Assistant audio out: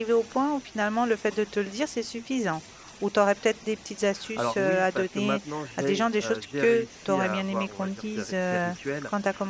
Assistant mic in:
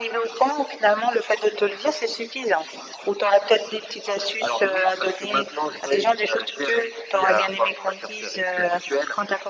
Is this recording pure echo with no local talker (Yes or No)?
Yes